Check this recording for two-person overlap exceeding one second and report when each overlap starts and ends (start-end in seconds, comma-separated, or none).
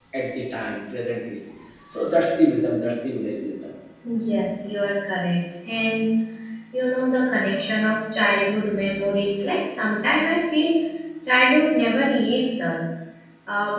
none